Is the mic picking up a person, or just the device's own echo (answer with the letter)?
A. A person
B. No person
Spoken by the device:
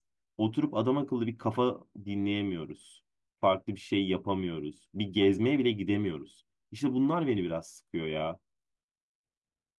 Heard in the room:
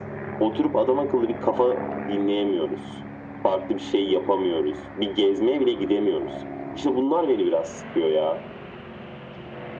B